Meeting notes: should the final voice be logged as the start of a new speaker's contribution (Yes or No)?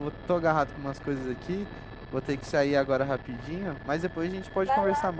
Yes